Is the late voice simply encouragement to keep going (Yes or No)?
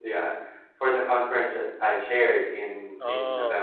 Yes